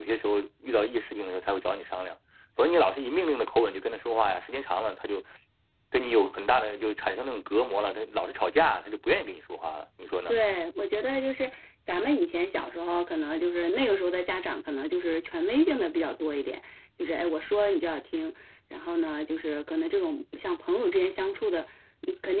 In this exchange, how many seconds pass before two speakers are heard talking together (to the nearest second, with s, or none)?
none